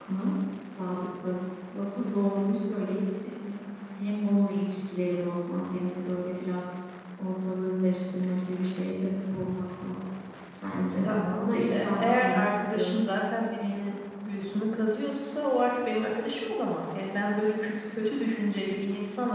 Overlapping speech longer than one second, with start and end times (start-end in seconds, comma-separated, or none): 11.0-13.1